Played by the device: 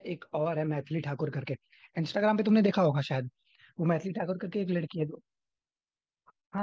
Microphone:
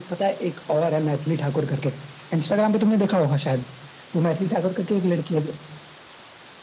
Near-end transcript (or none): none